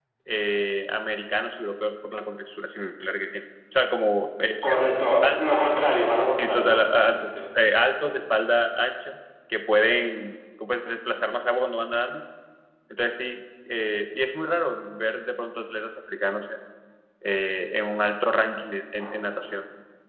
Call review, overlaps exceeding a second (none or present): present